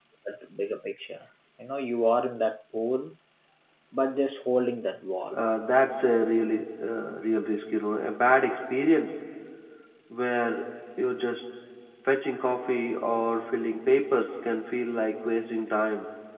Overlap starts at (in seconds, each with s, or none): none